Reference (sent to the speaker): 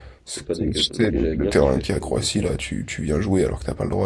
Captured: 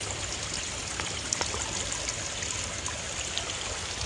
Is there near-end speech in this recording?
No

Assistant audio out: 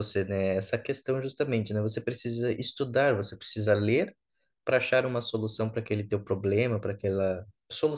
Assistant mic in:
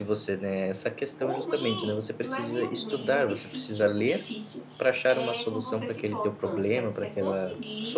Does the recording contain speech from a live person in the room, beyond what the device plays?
Yes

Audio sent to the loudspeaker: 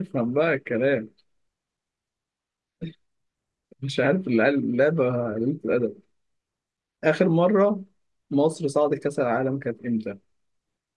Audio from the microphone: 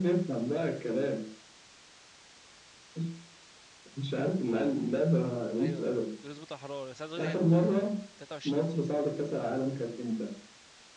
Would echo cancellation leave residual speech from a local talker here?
Yes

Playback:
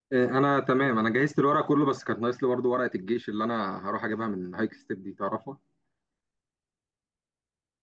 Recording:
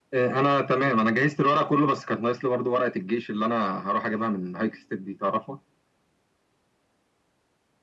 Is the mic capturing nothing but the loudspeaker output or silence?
Yes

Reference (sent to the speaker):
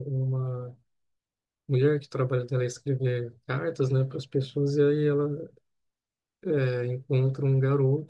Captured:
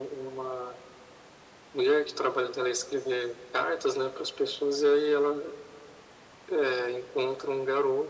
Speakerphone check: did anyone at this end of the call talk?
No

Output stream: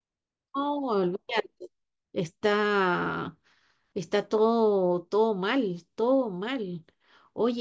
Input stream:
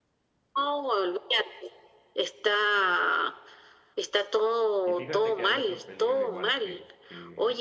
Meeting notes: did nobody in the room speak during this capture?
No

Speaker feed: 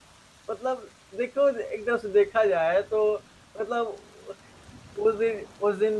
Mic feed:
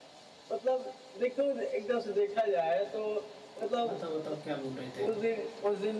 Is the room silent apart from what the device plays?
No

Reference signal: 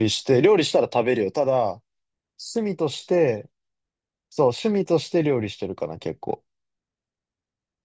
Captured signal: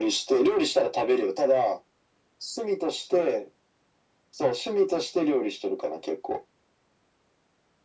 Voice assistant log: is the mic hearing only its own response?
Yes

